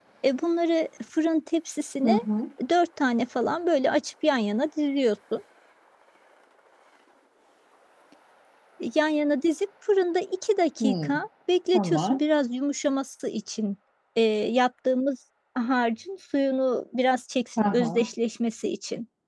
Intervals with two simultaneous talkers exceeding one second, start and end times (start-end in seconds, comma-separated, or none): none